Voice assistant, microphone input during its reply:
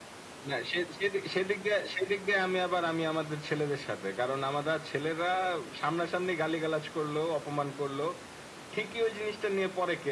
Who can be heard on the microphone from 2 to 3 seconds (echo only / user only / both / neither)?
echo only